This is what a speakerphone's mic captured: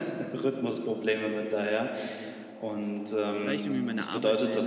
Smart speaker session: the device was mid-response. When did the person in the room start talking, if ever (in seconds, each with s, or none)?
3.3 s